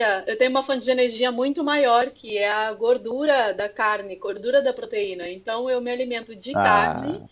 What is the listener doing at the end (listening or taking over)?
listening